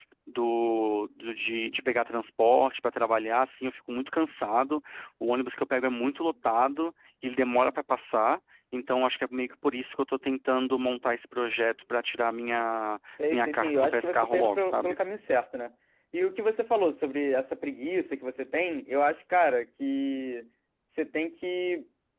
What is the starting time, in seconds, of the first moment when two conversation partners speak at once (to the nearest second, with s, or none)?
13 s